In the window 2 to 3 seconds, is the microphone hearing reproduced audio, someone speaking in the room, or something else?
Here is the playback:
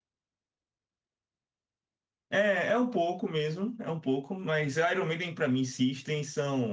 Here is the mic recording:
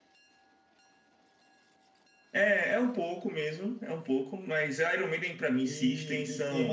echo only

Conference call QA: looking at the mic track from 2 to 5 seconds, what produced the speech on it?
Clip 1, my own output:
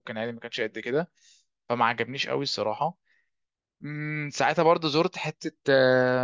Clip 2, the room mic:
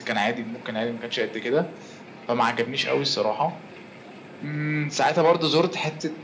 echo only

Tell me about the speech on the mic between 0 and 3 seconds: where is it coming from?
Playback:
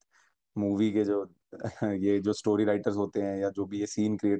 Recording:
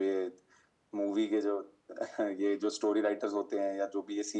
echo only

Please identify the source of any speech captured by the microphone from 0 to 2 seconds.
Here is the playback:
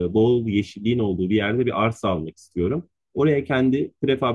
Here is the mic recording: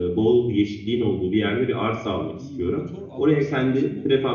echo only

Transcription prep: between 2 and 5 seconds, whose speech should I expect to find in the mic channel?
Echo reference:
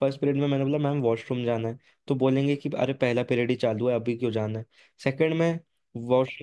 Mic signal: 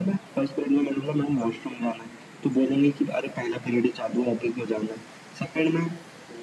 echo only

